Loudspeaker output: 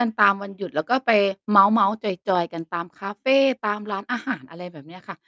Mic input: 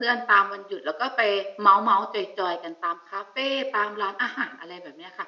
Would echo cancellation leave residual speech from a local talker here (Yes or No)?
No